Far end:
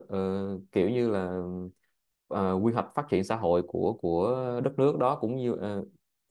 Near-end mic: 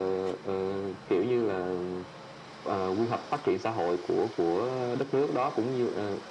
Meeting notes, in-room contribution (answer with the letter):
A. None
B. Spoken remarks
A